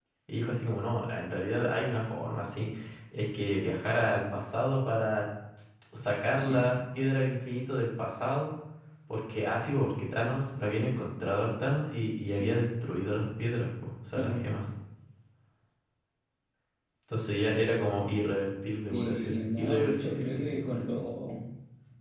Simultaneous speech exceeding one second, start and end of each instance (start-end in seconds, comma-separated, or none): 18.9-20.9